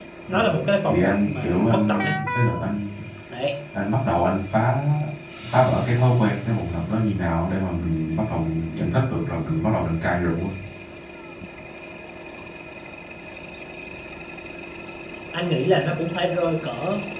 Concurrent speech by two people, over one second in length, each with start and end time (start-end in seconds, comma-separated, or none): 0.9-2.1